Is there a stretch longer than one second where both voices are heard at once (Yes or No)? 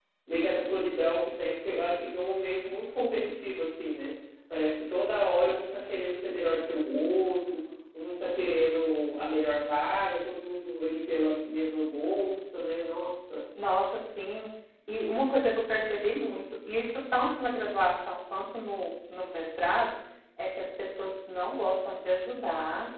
No